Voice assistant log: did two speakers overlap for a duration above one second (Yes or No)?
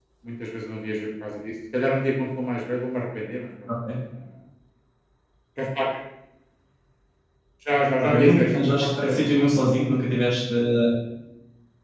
Yes